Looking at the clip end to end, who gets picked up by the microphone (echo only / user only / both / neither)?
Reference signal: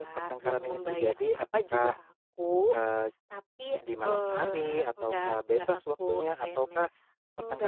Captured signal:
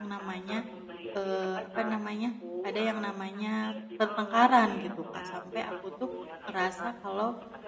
both